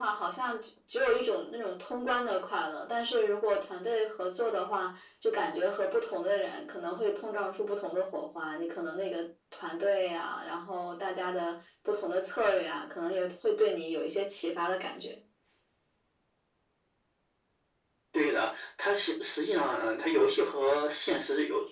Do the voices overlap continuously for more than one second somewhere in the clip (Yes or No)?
No